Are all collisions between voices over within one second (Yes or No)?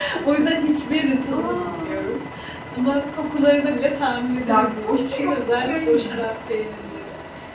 No